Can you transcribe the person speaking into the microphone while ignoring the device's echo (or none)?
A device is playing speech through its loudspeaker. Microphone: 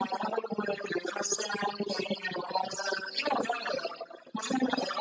none